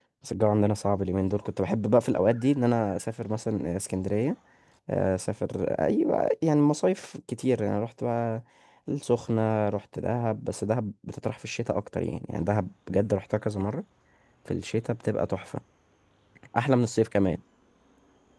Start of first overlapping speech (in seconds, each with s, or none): none